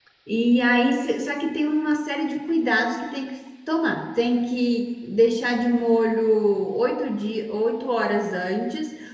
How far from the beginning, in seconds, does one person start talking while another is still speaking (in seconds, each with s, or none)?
none